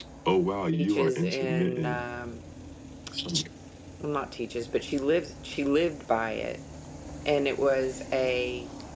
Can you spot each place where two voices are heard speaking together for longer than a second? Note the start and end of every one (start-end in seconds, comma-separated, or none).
0.7-2.0